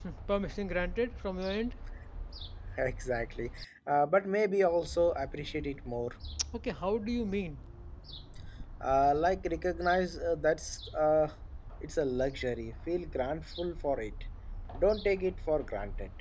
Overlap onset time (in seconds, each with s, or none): none